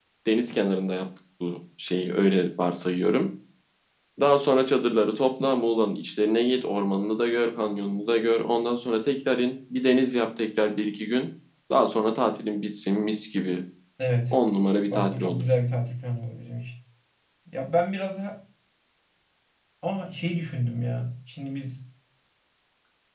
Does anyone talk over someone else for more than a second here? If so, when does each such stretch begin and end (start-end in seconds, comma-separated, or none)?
none